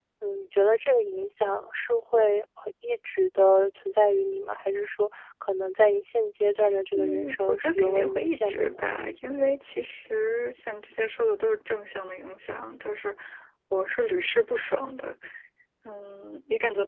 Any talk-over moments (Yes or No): Yes